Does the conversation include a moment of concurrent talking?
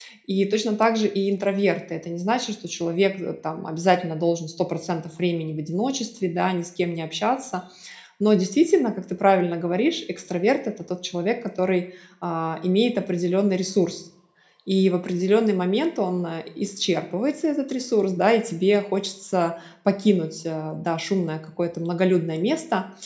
No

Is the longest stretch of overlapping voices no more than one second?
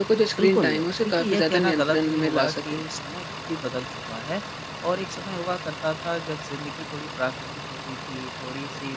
No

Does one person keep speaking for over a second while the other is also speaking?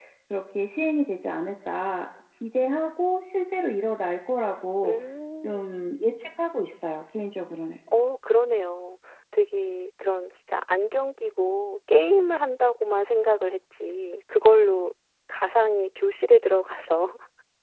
No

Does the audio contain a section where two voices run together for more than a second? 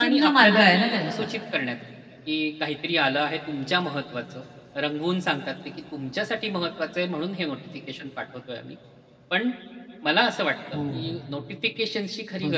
Yes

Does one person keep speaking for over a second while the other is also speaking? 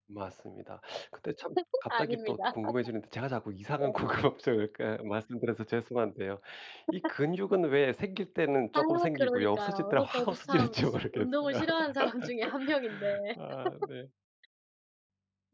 Yes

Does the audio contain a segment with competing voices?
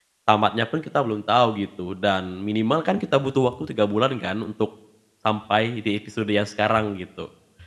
No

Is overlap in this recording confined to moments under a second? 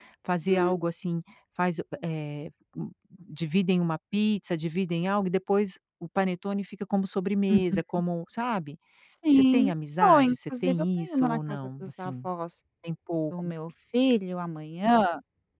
No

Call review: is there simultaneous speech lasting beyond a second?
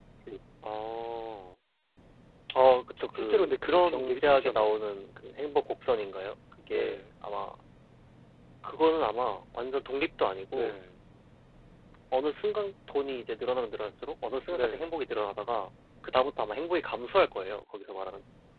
Yes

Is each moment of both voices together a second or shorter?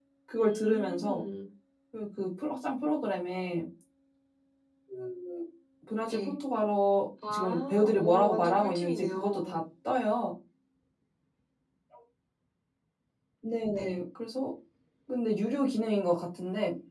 No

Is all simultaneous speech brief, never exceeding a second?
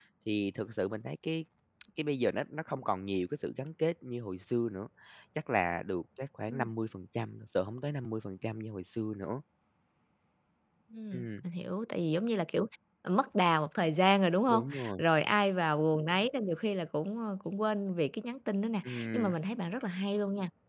Yes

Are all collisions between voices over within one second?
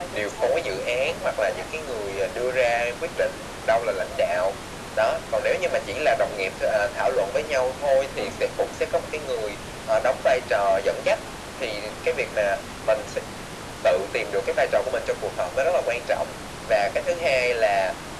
Yes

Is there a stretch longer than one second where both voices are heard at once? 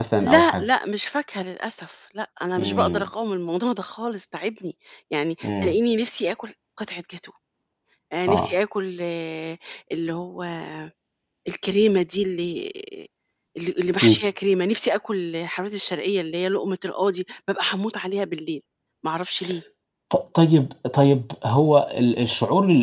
No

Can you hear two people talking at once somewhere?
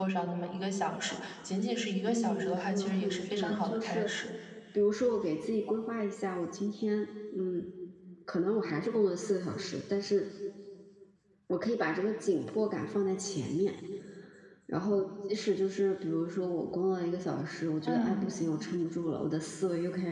Yes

